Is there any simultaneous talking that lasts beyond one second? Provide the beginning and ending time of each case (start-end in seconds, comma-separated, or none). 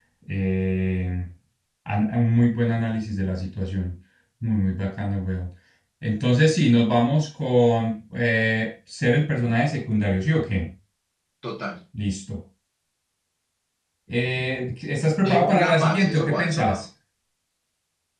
15.2-16.8